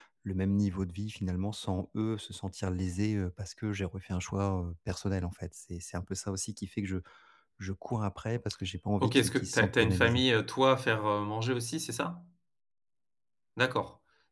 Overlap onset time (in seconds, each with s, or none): 9.0 s